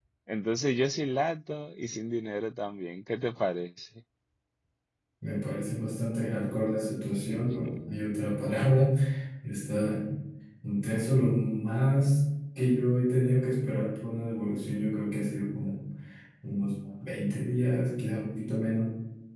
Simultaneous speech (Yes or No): No